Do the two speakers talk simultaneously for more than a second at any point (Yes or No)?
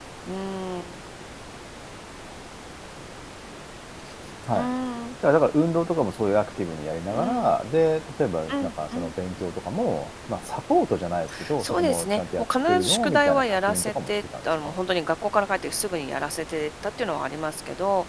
Yes